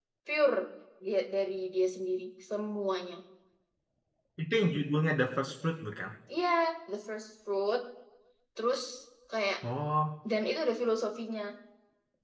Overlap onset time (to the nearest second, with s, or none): none